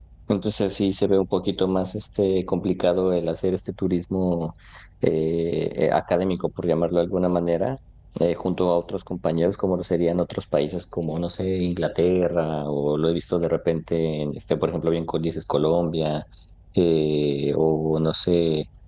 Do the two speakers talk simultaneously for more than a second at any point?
No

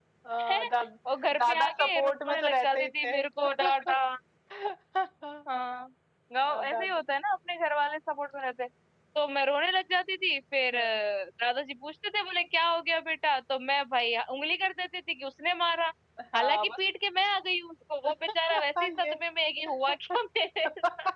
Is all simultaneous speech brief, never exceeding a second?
No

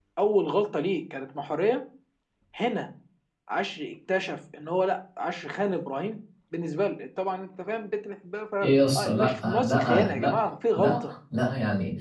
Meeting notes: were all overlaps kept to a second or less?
No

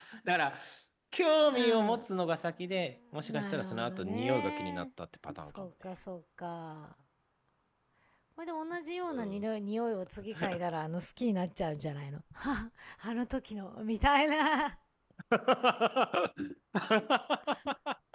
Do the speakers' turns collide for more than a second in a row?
Yes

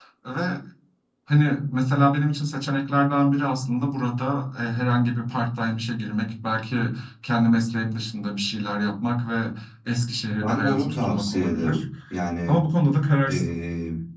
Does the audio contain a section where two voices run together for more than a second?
Yes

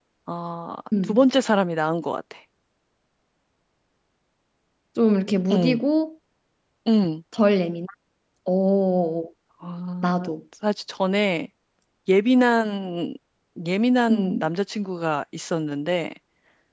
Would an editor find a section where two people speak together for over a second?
No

